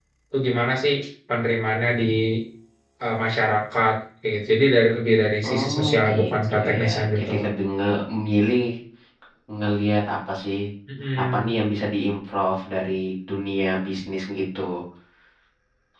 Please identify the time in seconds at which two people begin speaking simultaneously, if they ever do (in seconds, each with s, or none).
5.4 s